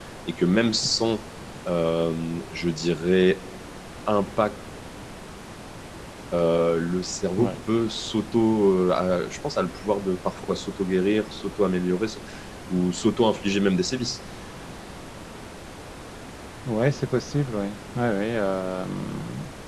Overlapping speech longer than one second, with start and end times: none

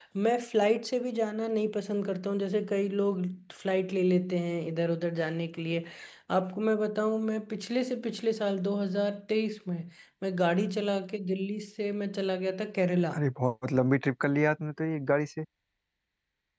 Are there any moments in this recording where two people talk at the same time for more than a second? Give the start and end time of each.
none

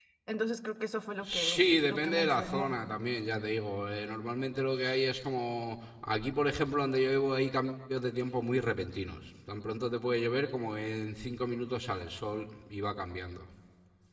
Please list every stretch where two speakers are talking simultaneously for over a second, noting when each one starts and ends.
1.2-2.8

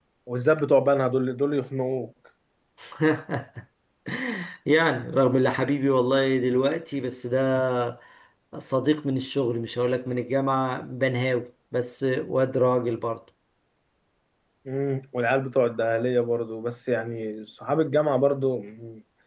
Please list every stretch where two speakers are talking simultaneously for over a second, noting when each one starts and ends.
none

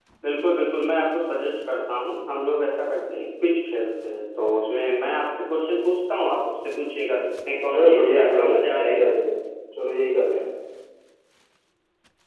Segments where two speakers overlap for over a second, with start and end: 7.7-9.1

